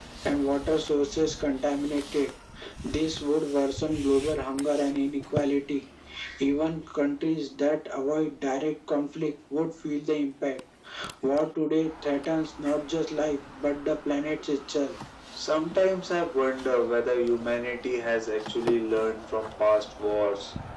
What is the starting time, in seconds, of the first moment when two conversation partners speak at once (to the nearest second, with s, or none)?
none